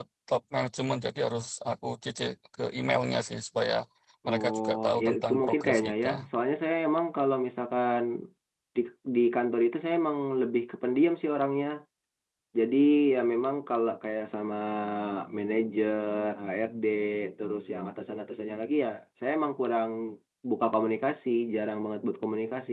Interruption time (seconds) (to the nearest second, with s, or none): 4 s